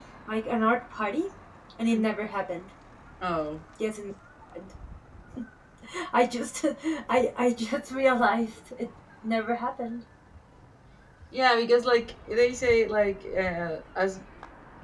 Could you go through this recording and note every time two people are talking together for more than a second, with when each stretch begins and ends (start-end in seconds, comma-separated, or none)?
none